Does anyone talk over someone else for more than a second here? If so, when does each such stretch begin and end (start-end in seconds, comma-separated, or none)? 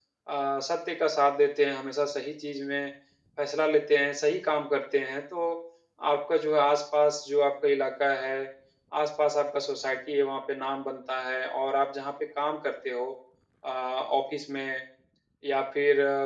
none